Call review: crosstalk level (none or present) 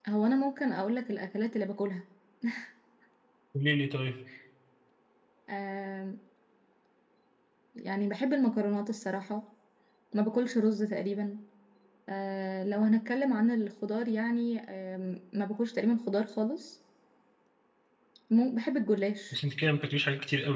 none